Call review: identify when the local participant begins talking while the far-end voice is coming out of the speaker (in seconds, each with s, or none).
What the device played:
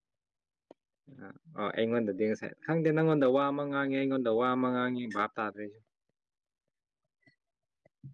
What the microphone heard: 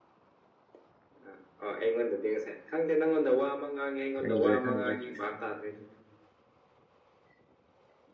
4.1 s